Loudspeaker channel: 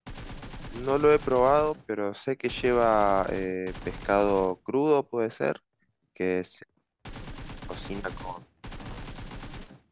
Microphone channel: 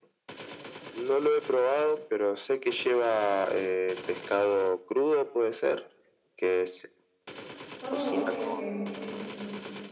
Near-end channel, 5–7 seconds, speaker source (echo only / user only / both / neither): echo only